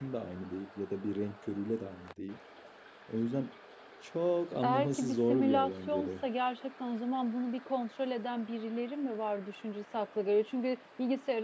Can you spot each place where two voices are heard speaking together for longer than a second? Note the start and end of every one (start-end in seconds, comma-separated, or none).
4.6-6.1